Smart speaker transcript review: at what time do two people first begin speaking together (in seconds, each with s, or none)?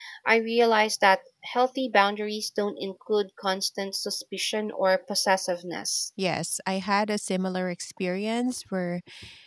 none